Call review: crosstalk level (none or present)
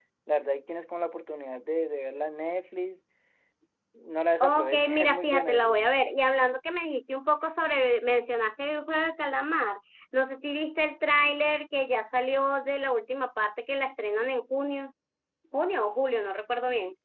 present